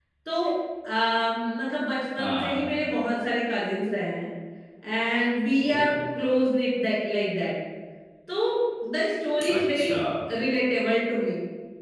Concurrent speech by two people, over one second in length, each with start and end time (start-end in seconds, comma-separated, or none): none